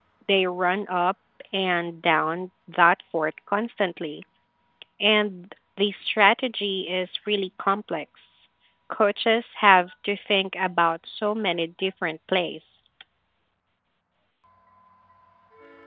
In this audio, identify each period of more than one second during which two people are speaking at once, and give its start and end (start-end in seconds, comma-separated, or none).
none